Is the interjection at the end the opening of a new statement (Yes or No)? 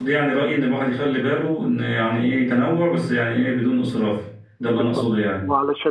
Yes